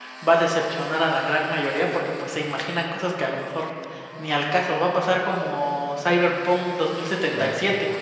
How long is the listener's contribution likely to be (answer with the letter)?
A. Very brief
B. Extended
A